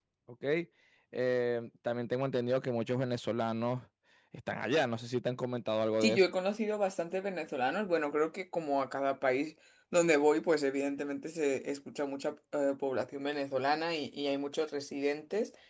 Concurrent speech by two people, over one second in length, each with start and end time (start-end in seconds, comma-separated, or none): none